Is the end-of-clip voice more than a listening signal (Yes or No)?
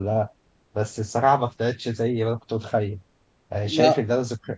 No